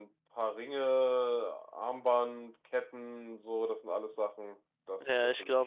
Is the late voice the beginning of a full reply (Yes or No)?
Yes